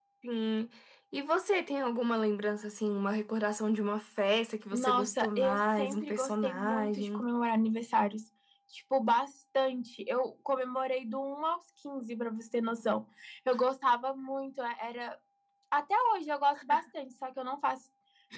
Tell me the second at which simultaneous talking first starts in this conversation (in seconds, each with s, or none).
4.7 s